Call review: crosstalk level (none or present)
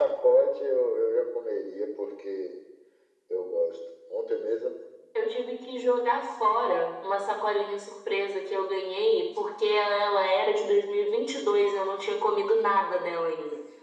none